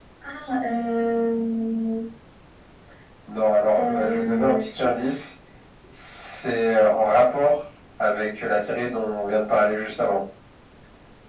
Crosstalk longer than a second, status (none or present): present